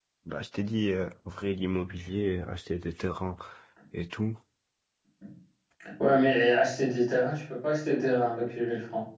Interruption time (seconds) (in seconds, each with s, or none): none